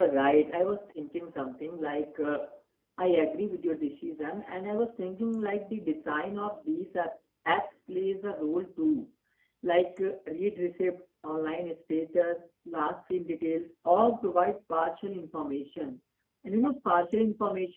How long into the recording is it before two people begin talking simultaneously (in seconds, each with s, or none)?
none